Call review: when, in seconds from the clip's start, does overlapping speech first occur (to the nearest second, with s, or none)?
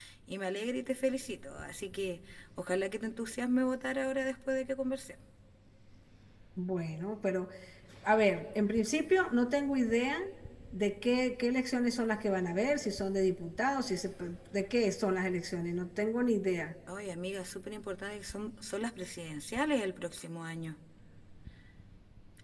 none